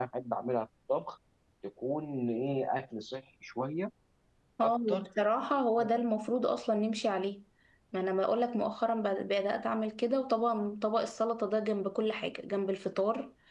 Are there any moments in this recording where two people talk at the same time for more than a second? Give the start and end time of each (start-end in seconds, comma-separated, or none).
none